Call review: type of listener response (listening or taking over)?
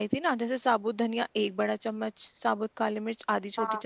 listening